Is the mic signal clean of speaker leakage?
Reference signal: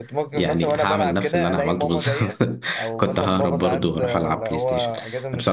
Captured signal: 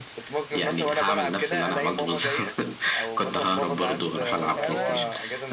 No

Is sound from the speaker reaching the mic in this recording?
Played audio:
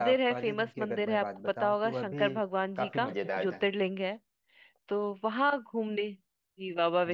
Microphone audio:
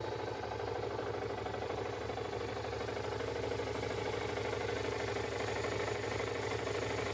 No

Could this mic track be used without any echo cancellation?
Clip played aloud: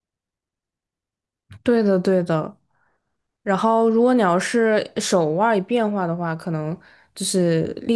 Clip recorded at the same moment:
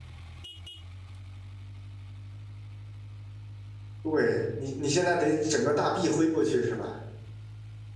Yes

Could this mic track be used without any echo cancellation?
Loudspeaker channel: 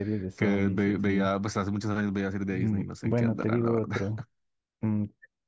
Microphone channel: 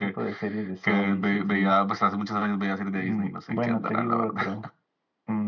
No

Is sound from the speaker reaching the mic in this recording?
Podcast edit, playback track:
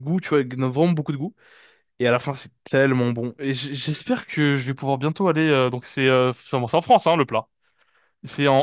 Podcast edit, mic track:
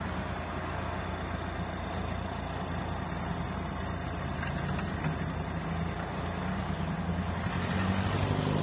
No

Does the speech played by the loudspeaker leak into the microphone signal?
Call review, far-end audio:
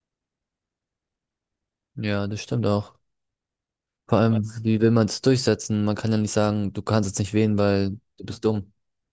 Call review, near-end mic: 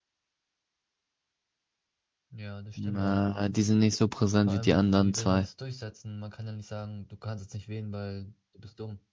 Yes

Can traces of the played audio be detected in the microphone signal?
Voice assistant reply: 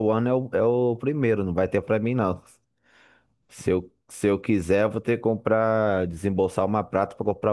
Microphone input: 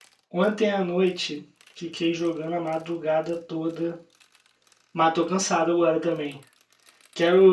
No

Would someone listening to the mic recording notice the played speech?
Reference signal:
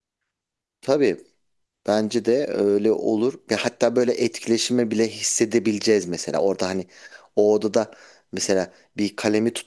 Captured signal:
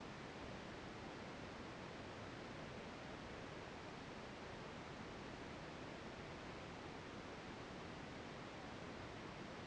No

